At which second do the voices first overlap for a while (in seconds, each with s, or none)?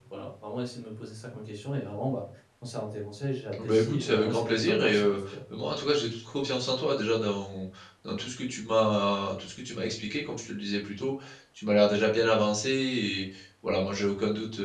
3.5 s